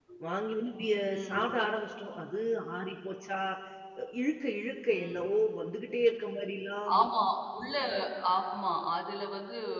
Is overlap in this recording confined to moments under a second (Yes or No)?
Yes